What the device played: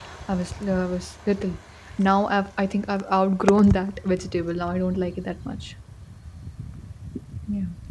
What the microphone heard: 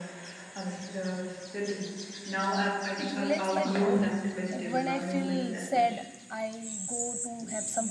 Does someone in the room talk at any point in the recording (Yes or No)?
Yes